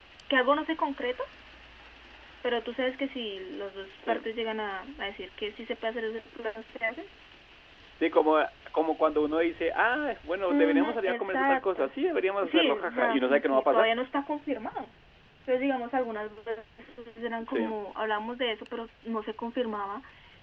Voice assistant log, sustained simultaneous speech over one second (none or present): present